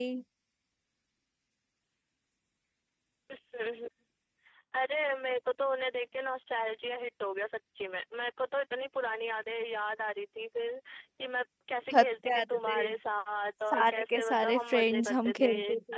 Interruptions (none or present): present